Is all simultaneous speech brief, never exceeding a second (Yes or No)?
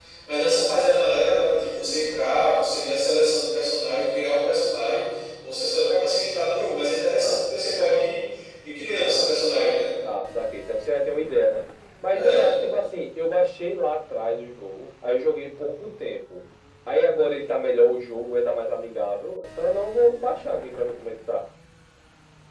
Yes